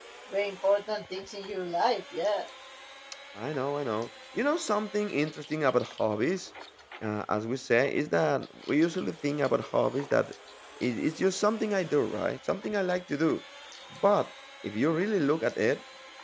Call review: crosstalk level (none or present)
none